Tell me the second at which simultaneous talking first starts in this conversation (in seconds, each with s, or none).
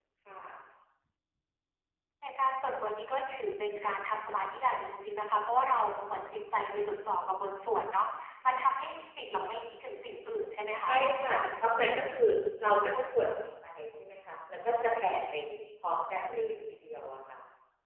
none